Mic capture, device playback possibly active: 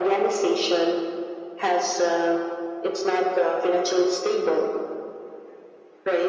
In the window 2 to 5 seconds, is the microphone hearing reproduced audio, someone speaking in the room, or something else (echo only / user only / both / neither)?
echo only